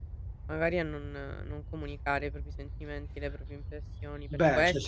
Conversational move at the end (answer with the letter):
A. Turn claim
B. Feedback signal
A